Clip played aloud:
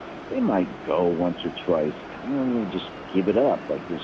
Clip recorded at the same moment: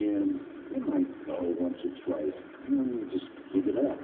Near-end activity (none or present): none